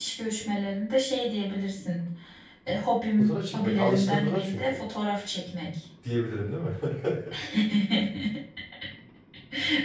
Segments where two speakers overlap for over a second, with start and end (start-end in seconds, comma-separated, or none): 3.2-4.6